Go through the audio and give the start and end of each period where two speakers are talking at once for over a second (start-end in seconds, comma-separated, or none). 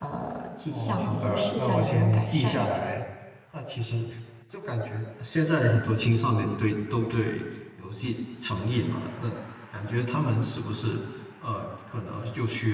0.7-2.6